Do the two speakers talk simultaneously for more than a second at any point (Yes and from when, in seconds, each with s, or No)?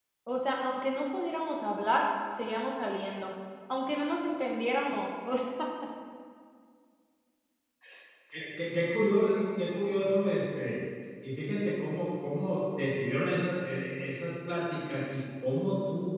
No